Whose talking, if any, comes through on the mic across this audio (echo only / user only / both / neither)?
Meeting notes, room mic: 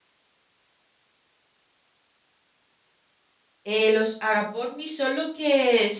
user only